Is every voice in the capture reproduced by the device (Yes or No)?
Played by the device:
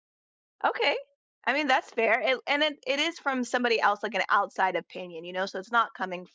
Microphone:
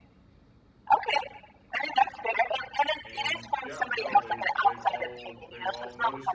No